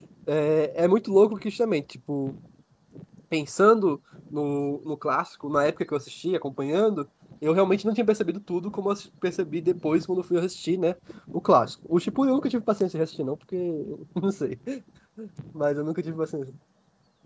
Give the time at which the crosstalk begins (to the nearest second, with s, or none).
none